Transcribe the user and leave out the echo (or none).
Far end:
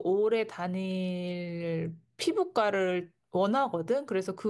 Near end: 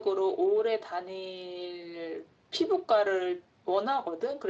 none